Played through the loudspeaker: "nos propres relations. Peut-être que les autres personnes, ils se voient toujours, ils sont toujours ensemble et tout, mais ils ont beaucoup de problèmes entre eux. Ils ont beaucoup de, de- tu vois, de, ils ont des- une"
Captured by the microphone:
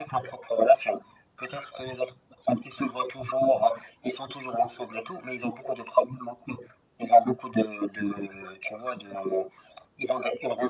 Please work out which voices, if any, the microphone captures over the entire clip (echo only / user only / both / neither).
echo only